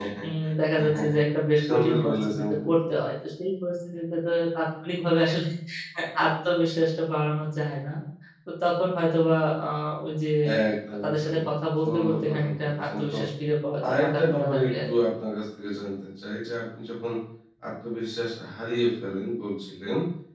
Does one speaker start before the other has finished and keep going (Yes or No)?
Yes